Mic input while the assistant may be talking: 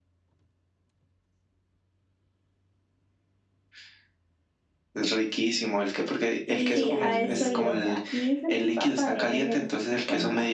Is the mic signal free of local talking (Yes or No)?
No